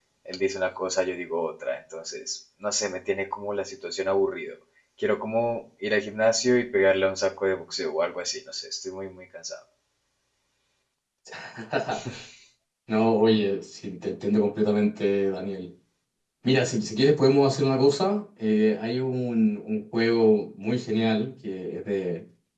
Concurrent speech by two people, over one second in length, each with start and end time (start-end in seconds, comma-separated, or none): none